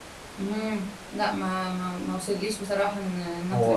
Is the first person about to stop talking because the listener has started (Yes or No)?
Yes